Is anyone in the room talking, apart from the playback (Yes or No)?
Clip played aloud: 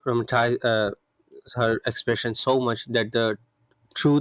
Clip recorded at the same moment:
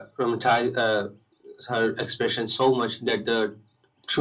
No